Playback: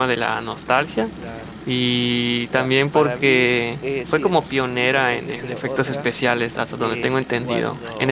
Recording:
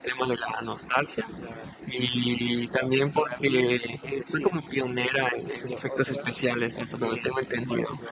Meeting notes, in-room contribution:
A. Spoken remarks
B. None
B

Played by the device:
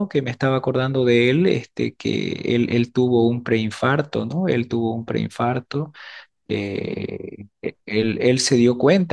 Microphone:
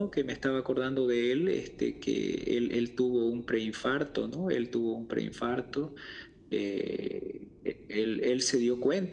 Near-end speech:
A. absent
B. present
A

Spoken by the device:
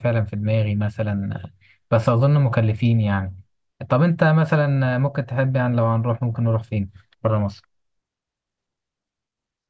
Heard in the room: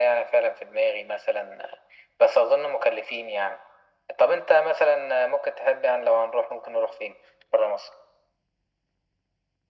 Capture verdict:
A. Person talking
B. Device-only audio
B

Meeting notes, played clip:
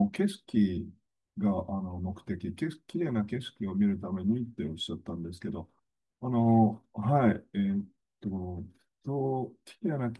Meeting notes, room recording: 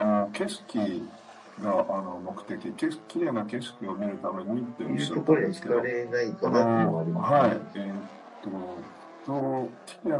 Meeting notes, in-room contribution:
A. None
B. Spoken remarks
B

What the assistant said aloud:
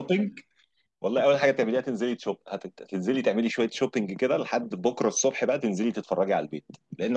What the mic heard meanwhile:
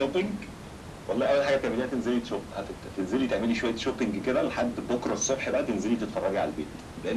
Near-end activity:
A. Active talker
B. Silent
B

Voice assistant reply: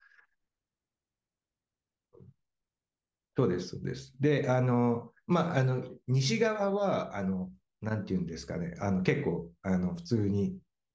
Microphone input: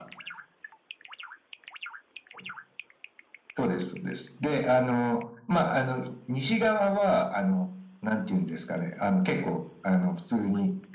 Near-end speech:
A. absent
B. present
A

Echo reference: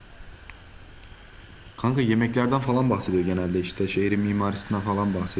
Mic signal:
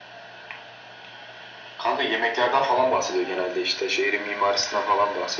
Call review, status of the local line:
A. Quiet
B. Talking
A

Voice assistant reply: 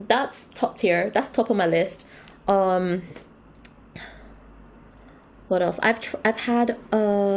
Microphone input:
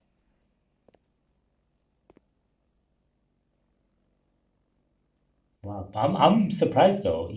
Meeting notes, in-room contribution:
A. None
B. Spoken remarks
B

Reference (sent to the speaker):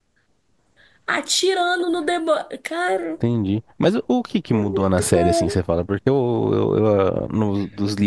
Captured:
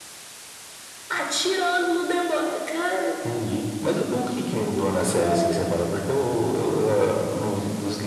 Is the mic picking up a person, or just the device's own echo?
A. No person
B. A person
A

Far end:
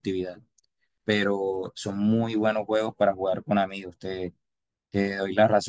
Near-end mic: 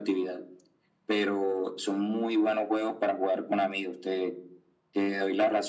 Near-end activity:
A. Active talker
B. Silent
B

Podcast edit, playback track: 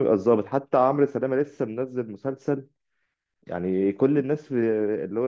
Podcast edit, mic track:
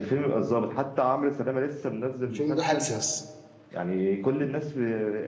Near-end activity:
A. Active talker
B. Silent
A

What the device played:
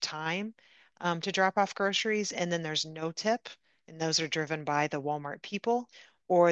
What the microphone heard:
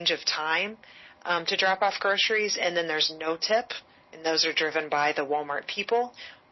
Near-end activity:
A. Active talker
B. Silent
B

